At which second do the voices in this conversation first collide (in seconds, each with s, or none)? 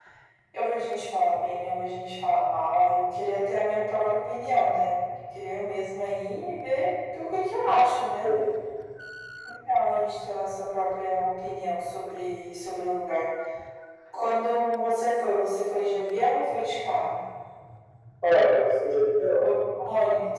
none